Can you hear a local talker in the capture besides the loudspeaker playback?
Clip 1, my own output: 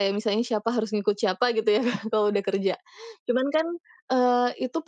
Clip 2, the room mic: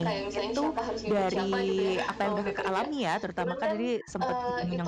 Yes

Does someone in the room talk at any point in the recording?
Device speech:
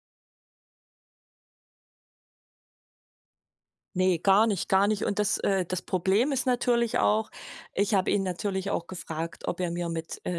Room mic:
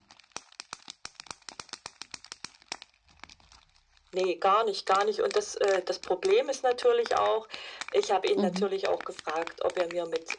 Yes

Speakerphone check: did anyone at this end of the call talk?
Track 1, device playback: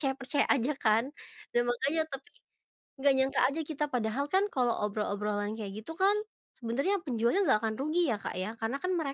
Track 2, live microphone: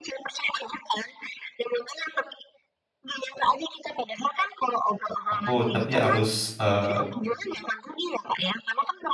Yes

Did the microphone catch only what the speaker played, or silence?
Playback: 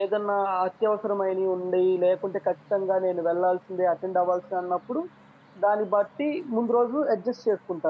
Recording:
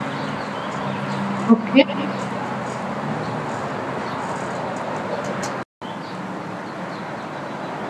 No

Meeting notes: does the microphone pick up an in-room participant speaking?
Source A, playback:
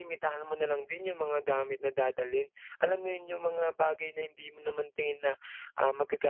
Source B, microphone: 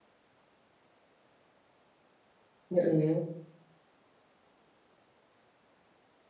Yes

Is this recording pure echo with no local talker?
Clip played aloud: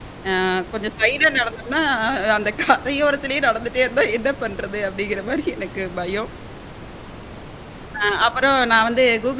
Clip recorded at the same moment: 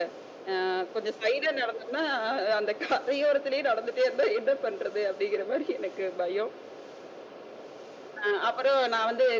Yes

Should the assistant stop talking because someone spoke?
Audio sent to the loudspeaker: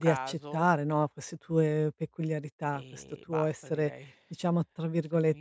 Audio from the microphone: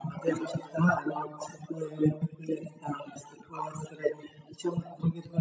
No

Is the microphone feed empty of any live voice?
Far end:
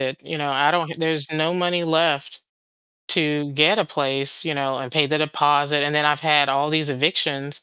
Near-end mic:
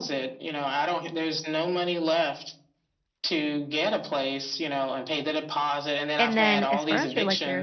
No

